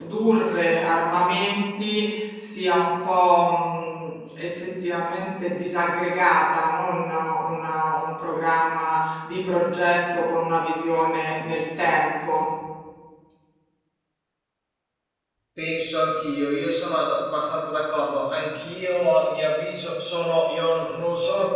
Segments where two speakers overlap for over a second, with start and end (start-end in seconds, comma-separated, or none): none